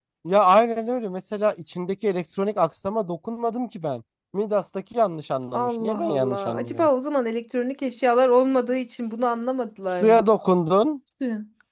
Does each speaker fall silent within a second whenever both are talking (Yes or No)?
No